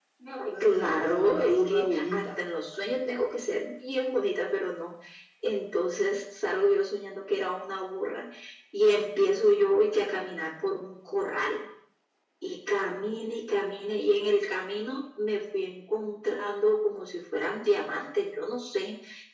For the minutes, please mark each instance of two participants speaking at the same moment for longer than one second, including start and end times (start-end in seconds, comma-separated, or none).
0.6-2.4